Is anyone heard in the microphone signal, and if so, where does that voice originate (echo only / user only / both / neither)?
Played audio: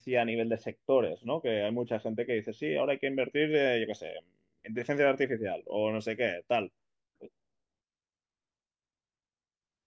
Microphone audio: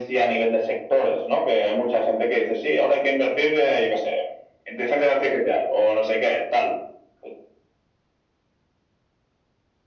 echo only